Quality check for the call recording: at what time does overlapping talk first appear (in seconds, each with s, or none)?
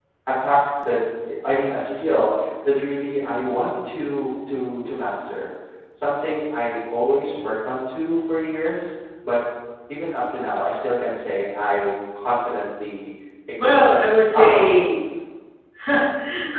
13.6 s